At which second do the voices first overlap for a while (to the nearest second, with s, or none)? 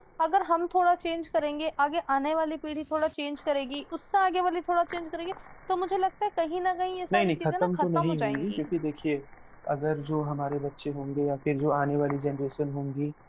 7 s